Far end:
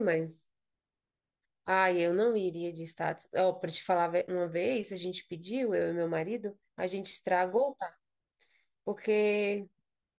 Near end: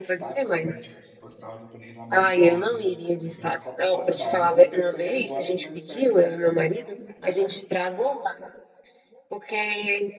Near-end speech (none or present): present